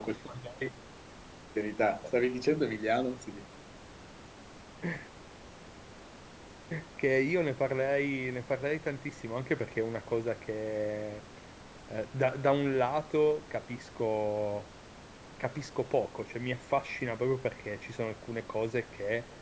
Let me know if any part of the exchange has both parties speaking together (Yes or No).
No